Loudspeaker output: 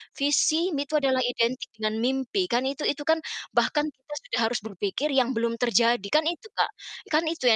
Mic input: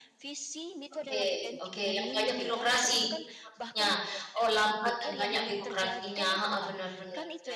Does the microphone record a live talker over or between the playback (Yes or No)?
Yes